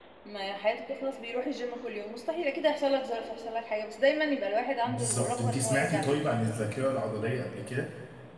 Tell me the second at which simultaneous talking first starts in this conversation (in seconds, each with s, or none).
4.8 s